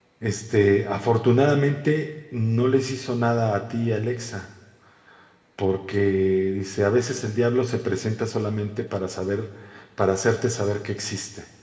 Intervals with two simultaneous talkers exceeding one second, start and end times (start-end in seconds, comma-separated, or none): none